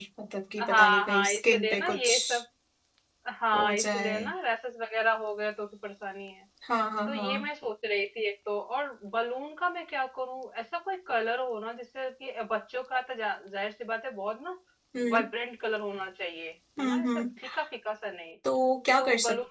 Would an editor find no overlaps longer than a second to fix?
No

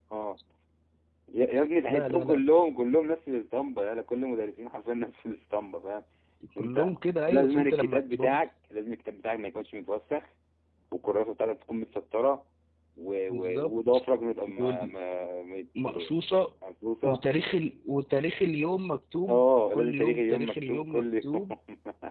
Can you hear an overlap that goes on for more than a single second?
Yes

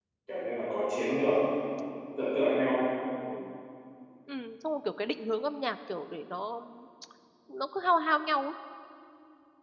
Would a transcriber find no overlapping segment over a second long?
Yes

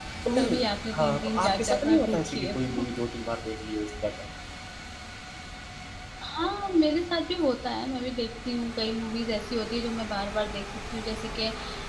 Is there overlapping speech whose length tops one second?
Yes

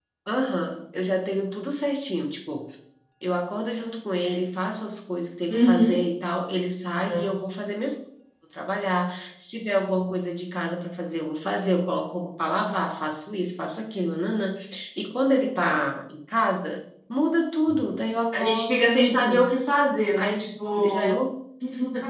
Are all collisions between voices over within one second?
No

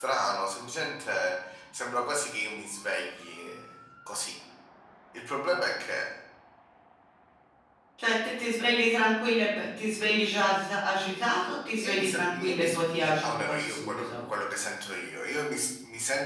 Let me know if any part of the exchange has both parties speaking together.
Yes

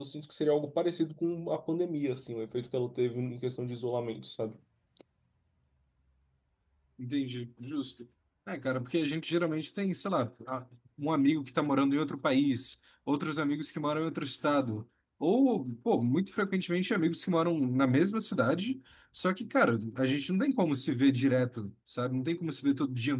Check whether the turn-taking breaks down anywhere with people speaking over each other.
No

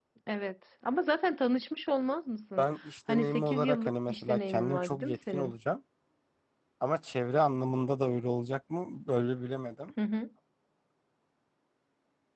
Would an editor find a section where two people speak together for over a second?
Yes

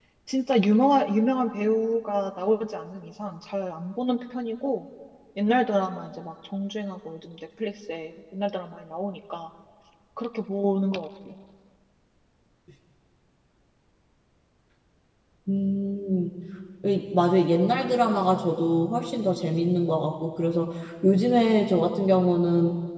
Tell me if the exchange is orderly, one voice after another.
Yes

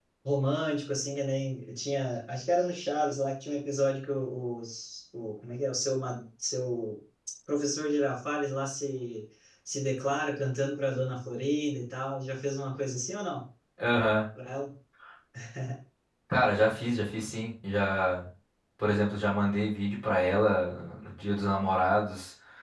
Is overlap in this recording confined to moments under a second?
Yes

